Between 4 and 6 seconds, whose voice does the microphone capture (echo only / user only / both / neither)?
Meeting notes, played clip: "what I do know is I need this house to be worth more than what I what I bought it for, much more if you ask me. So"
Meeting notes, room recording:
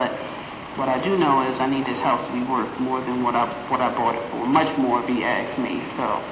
echo only